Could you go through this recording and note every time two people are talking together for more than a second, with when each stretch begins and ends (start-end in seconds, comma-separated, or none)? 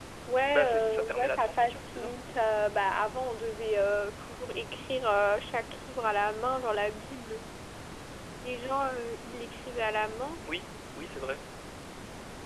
0.5-2.1